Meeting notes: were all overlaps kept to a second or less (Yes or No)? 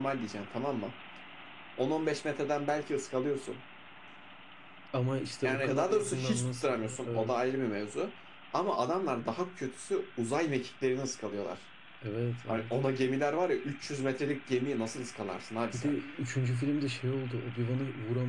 No